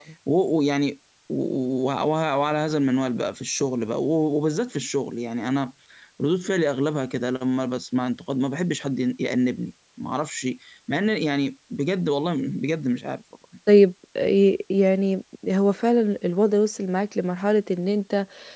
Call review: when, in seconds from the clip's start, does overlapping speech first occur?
none

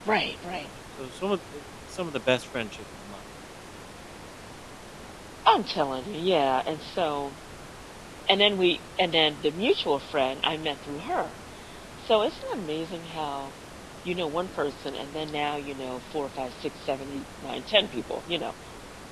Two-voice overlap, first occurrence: none

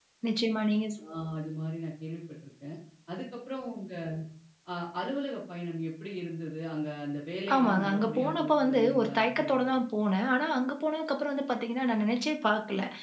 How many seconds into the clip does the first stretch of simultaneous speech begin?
7.5 s

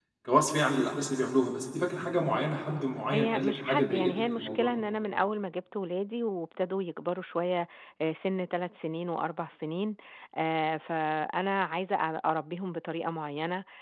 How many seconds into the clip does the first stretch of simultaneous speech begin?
3.1 s

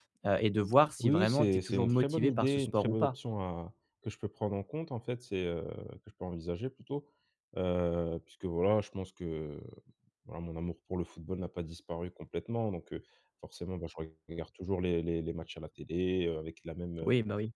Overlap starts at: 1.0 s

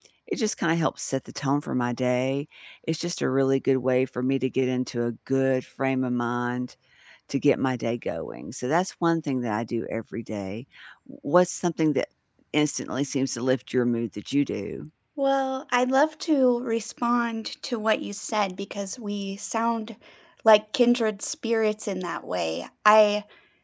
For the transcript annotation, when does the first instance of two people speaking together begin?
none

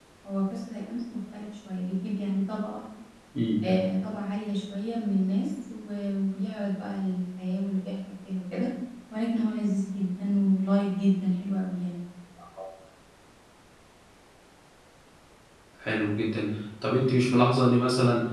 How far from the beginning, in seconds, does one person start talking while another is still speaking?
none

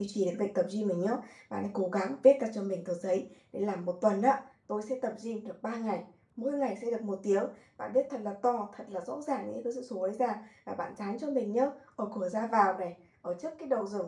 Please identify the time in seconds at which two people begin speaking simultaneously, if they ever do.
none

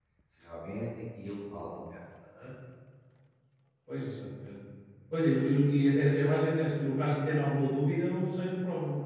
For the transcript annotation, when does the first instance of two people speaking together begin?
none

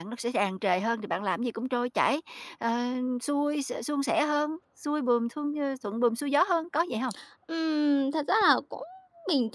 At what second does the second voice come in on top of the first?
none

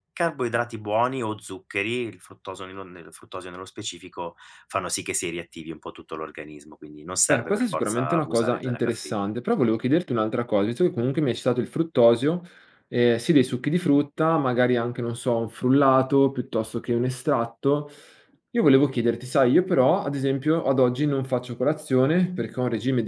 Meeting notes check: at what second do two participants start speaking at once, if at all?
7.3 s

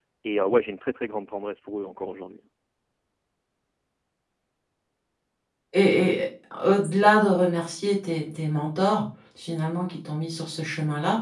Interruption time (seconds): none

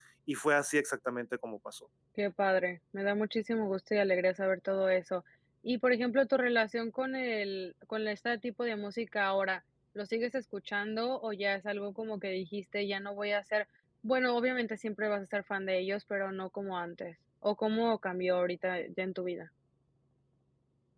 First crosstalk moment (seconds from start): none

